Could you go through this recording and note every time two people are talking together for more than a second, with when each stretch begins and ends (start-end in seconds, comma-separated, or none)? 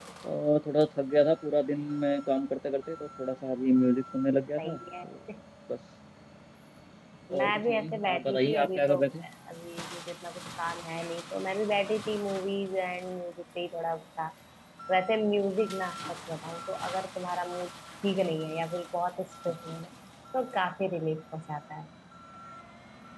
7.4-9.0